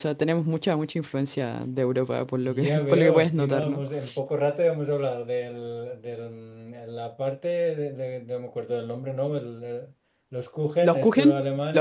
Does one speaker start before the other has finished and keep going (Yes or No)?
Yes